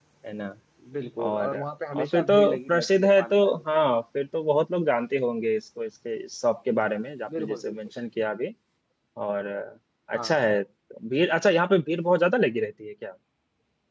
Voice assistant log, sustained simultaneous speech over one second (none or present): present